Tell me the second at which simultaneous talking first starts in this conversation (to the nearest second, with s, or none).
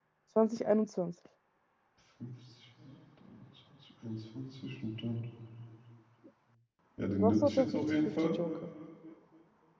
7 s